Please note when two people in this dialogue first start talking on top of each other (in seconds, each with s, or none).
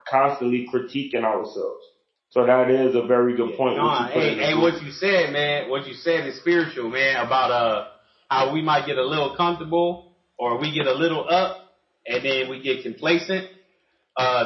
3.4 s